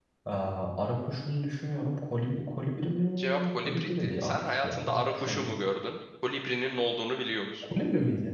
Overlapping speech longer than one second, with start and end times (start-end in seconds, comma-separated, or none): 3.2-5.5